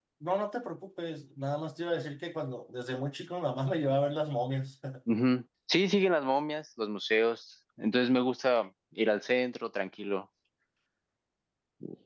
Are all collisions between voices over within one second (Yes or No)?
Yes